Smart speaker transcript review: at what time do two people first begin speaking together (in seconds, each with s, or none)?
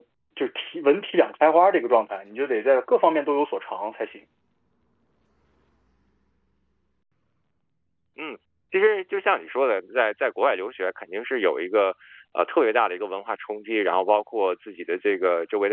none